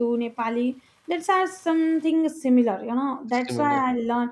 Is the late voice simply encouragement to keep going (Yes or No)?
Yes